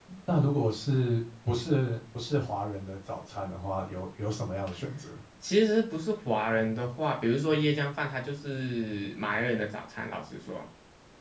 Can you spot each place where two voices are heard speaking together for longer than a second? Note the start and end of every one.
none

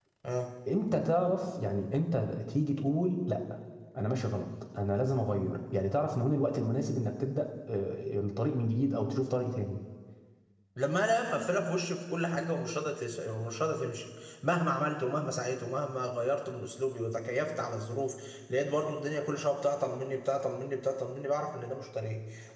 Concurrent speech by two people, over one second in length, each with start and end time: none

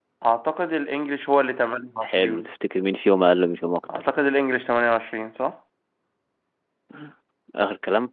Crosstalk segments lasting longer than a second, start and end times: none

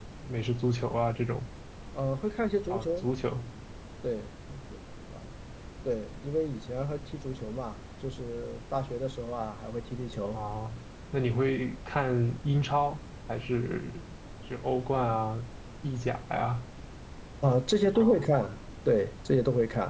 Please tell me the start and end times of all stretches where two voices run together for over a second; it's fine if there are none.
none

